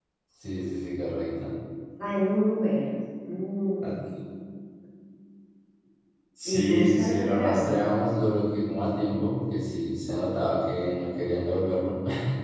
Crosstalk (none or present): present